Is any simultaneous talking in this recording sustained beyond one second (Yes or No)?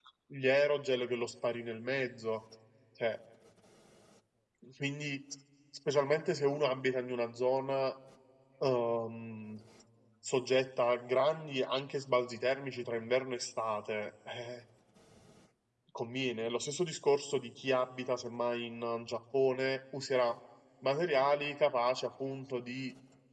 No